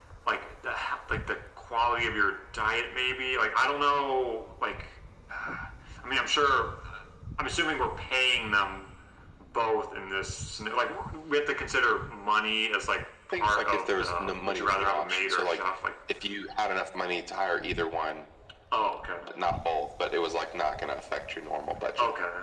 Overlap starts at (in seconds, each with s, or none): 13.3 s